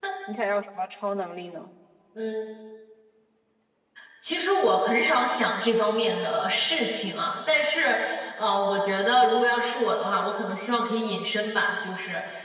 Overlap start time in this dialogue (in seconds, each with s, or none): none